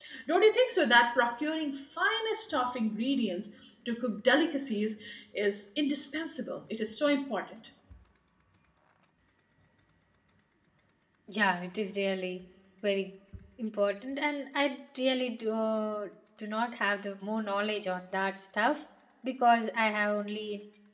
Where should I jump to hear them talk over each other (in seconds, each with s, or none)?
none